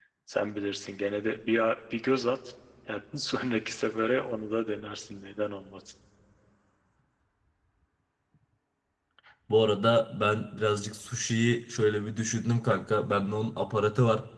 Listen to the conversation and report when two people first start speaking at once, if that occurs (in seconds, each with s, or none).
none